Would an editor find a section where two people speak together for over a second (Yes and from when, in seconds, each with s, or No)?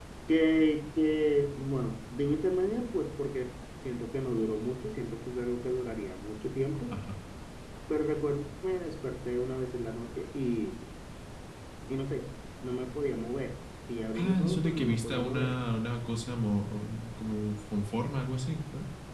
Yes, from 14.1 s